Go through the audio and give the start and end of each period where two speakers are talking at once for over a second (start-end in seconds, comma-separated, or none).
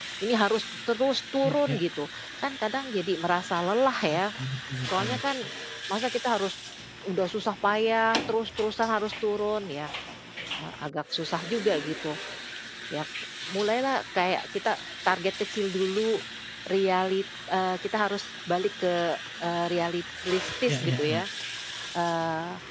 none